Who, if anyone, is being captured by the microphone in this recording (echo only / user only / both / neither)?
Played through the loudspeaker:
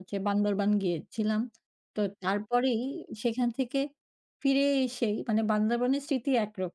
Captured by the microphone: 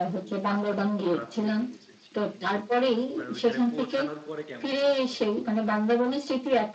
both